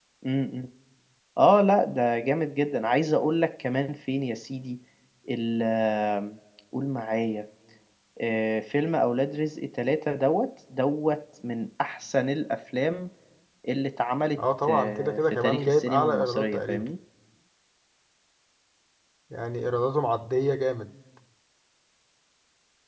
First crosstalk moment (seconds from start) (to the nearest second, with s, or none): 15 s